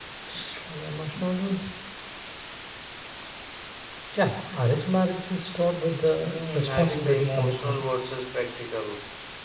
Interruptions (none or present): present